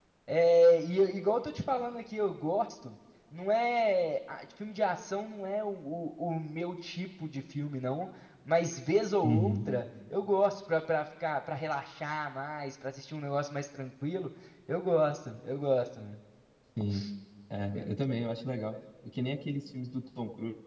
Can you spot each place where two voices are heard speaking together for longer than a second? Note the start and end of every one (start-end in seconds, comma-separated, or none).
none